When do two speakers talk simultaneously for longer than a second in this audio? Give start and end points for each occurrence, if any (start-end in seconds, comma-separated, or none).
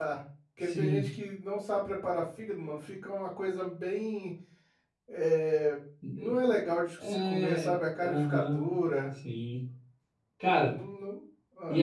7.0-8.6